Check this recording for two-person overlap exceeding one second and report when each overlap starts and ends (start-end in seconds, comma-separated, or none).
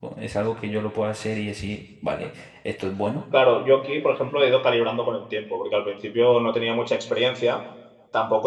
none